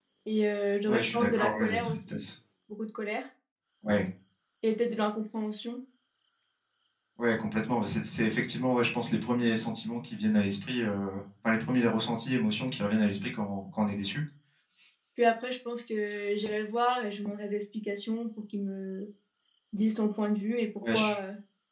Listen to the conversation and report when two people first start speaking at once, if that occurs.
0.9 s

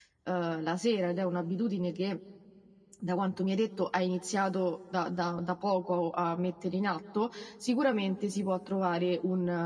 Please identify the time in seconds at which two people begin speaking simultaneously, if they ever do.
none

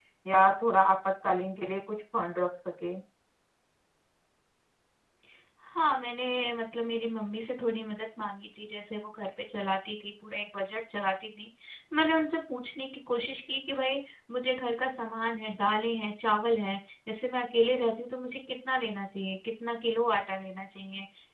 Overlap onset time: none

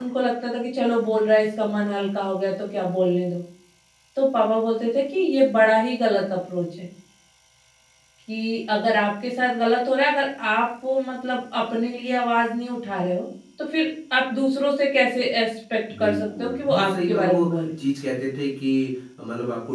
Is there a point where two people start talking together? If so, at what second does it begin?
15.9 s

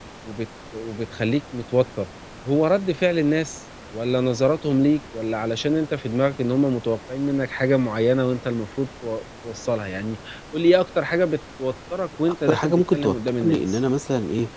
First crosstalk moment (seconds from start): 12.2 s

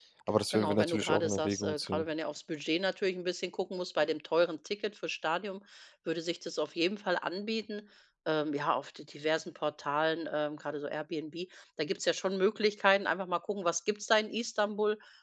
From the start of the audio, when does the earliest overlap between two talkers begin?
0.5 s

